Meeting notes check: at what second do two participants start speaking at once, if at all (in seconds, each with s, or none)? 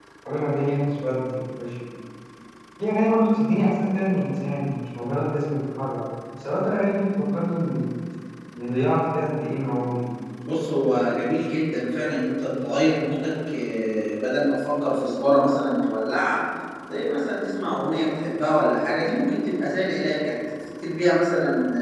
none